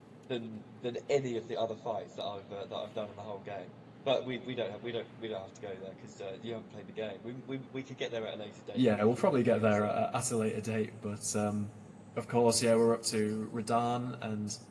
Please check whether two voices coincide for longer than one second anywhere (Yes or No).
Yes